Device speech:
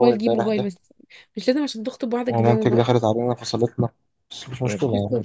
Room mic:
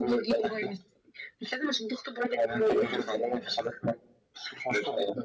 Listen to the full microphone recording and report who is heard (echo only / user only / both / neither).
both